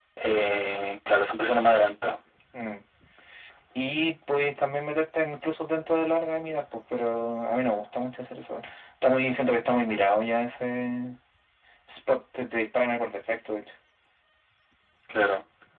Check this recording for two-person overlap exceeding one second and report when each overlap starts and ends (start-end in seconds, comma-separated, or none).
none